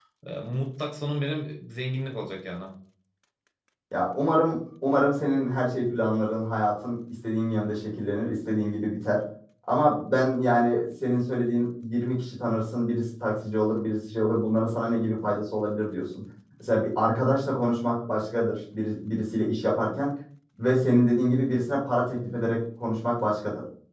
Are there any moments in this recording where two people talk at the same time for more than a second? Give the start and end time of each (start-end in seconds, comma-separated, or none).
none